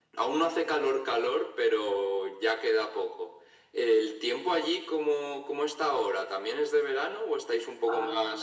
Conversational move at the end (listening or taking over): taking over